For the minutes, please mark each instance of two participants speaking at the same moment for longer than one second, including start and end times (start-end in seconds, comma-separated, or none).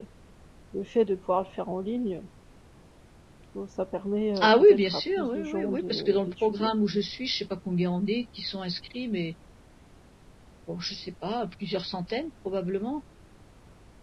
4.4-6.7